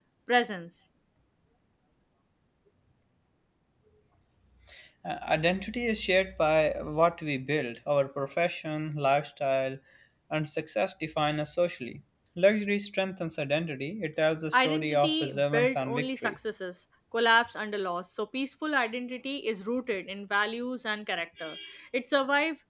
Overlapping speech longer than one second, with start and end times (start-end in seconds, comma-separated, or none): 14.5-16.4